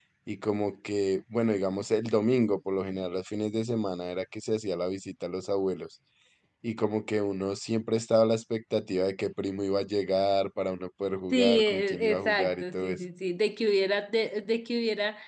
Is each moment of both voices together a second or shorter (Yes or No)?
No